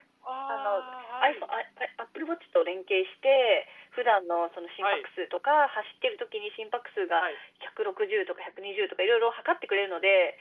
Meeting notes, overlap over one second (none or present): none